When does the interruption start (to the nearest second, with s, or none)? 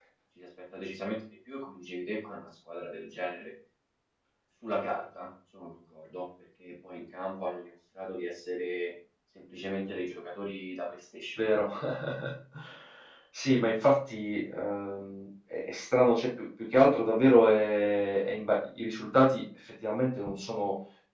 none